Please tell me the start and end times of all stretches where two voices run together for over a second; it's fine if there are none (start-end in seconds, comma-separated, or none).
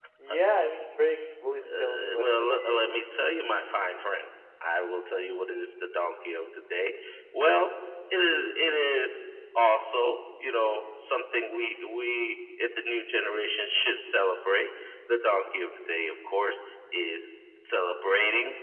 1.6-3.0